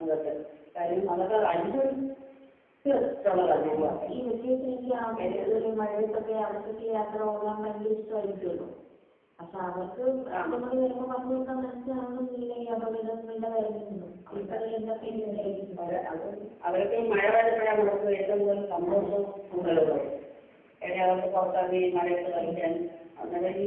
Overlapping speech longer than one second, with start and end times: none

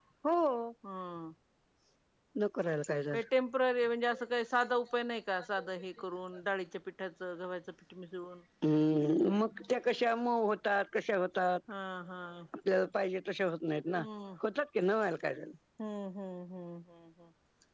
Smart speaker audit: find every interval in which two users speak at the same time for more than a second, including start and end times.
none

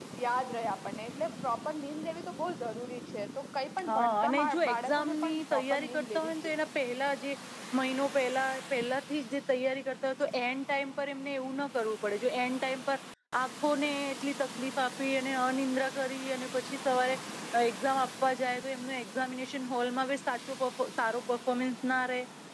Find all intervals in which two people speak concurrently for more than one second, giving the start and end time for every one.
3.9-6.7

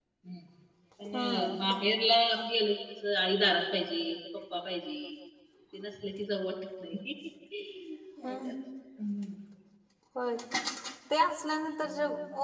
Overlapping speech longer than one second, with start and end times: none

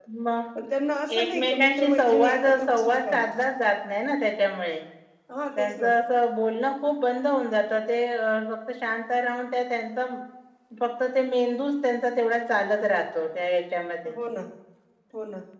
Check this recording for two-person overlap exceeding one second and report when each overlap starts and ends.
1.3-3.3

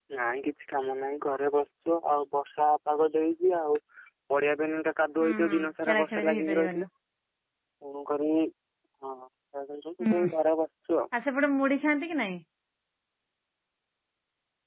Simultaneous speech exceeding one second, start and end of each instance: 5.2-6.8

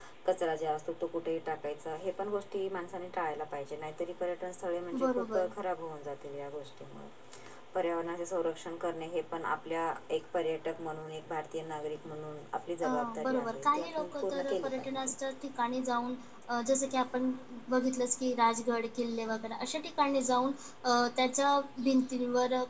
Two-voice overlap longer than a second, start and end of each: 12.8-15.1

